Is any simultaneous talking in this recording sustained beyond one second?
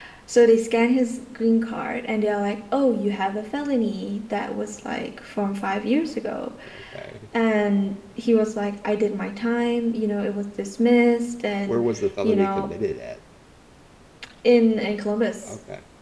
No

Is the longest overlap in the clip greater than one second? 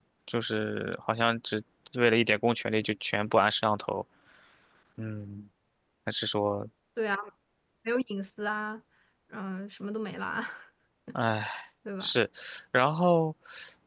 No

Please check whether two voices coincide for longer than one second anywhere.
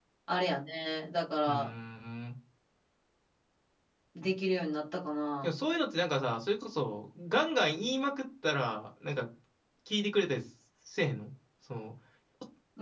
No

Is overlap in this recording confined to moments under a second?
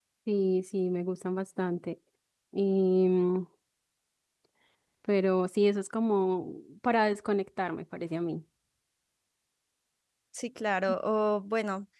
Yes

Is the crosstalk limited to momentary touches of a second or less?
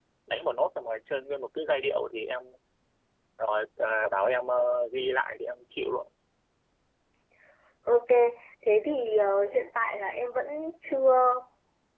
Yes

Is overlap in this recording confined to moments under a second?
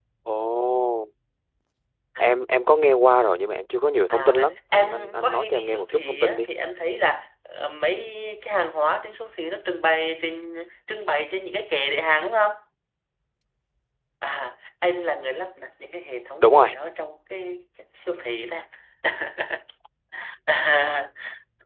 No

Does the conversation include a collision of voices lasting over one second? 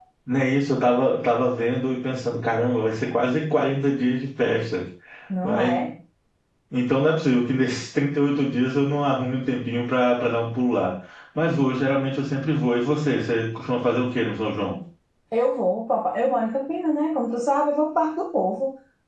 No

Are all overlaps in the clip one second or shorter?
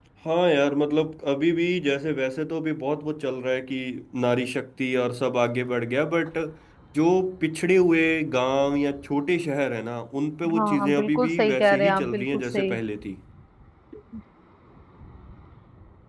No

